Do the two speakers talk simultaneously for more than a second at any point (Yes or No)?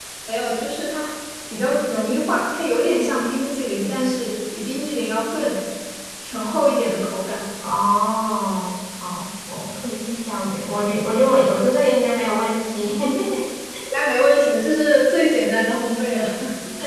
No